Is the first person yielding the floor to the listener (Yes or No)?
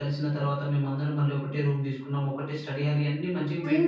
Yes